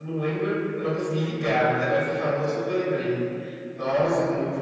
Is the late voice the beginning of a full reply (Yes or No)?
Yes